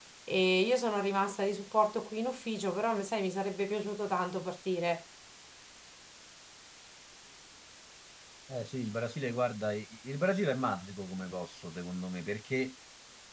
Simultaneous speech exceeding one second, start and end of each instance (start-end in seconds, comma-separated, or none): none